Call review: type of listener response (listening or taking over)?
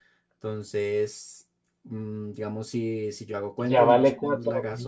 taking over